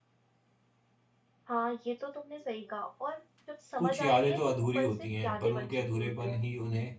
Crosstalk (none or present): present